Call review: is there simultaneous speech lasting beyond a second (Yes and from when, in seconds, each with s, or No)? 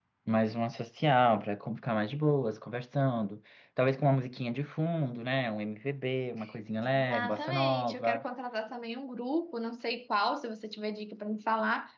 Yes, from 6.8 s